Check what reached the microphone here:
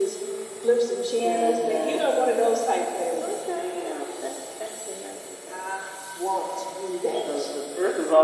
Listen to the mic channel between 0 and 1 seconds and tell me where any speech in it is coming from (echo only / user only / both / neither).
echo only